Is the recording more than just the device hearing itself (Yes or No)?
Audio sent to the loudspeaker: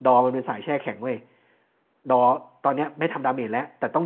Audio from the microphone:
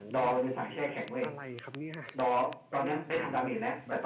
Yes